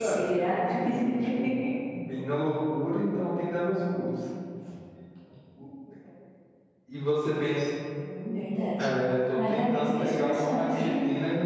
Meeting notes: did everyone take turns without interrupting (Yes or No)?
No